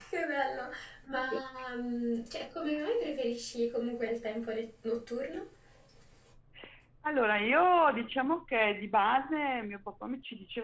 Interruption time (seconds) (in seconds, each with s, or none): none